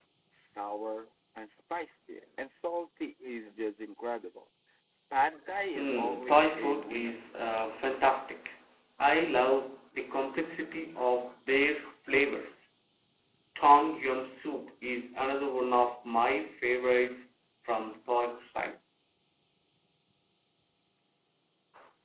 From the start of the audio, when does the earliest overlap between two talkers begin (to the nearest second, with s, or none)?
6 s